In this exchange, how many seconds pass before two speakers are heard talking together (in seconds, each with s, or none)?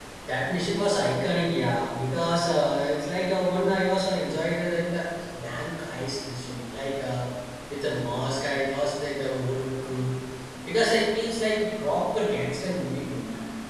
none